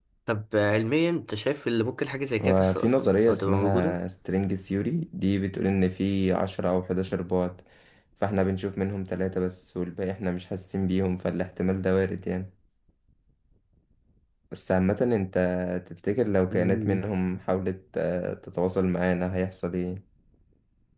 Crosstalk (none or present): present